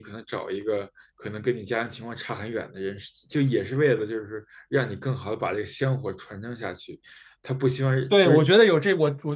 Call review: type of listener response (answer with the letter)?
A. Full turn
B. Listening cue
A